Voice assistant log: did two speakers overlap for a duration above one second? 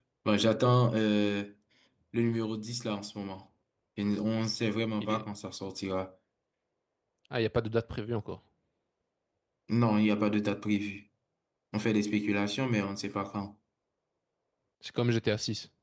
No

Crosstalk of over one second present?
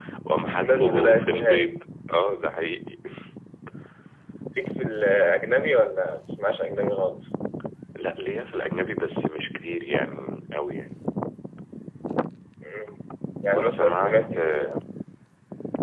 Yes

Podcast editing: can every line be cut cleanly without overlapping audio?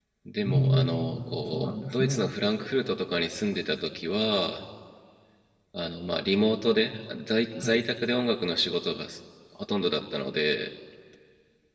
No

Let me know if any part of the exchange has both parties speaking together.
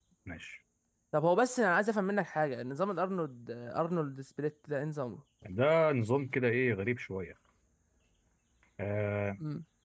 No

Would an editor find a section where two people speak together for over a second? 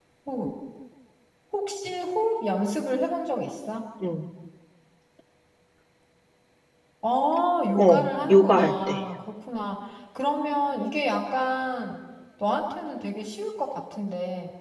Yes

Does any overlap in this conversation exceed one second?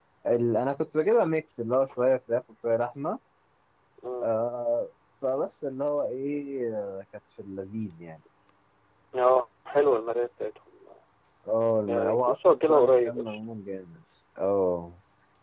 Yes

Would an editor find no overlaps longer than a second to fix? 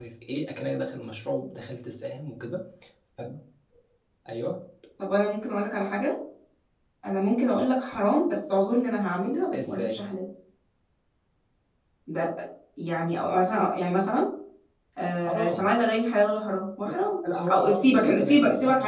No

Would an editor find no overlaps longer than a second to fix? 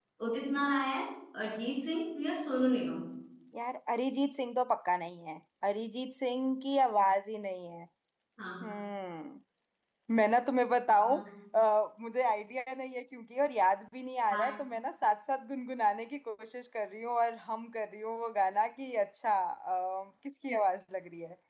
Yes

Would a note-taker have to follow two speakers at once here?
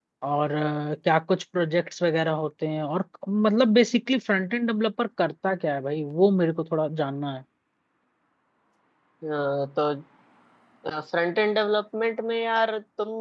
No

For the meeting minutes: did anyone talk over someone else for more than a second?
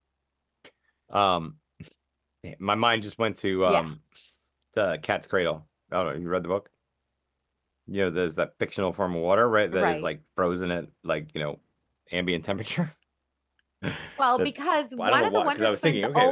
Yes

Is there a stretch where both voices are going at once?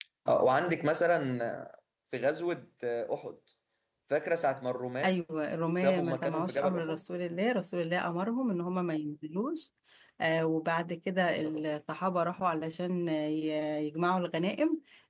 Yes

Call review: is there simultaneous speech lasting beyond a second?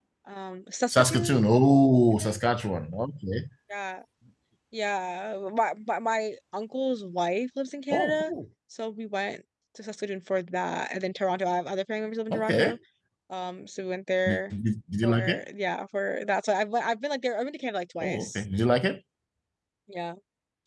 No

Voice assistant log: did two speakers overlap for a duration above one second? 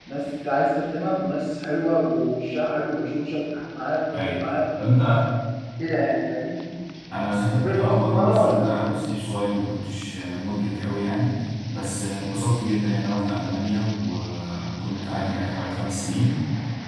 Yes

